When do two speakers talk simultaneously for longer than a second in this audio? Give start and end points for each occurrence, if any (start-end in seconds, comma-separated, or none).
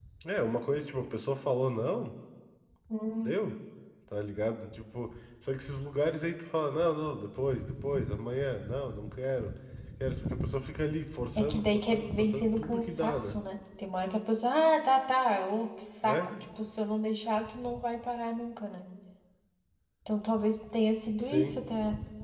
11.3-13.4